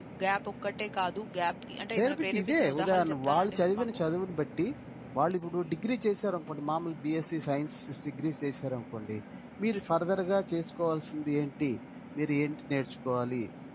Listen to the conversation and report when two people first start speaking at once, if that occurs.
2.0 s

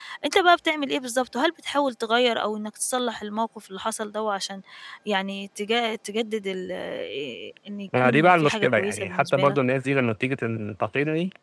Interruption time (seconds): 7.9 s

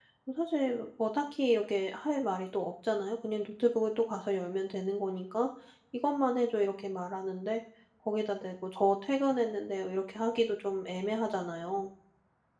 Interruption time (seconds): none

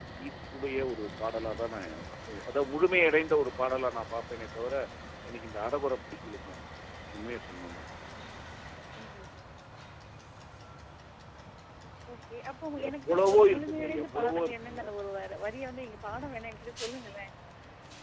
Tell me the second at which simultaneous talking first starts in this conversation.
12.9 s

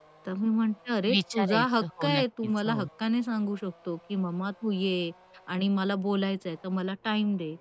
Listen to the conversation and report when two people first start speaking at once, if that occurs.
1.1 s

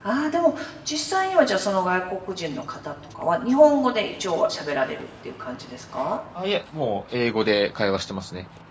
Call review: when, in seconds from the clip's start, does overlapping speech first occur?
none

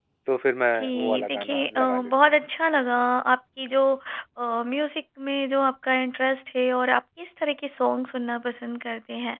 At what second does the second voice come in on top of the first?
0.7 s

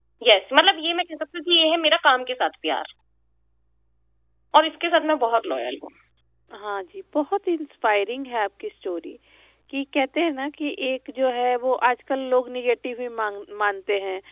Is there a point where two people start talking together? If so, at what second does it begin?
none

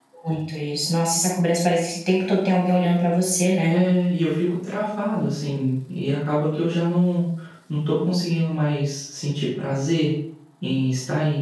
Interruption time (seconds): none

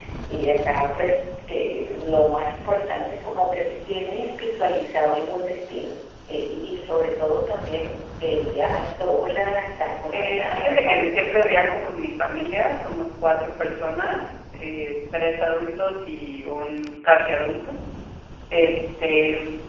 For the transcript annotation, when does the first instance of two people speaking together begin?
10.1 s

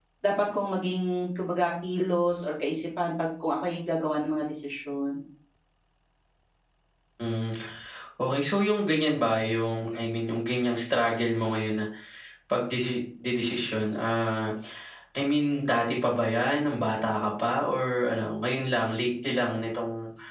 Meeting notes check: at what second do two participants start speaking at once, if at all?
none

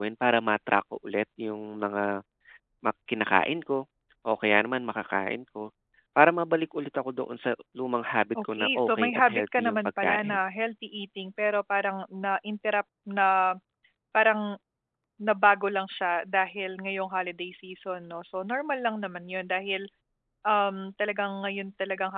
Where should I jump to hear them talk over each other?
8.3 s

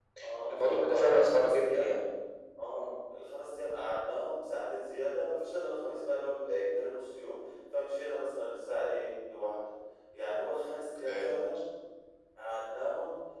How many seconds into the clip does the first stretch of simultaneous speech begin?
0.5 s

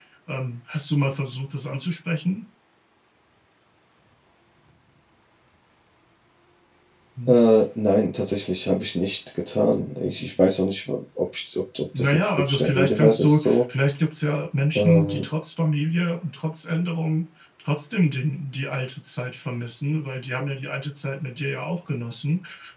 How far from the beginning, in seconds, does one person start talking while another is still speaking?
12.0 s

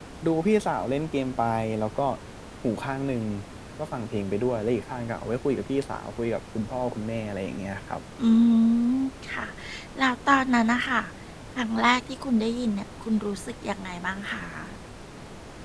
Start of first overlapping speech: none

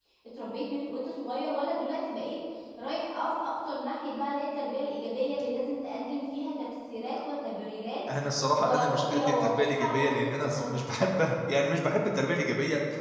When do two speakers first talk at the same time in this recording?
8.6 s

